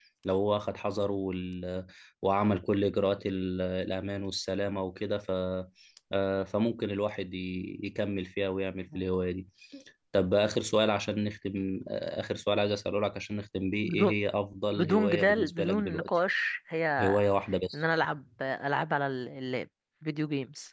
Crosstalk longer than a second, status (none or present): present